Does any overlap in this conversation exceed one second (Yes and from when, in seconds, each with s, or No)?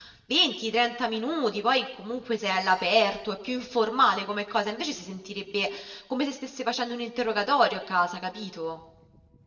No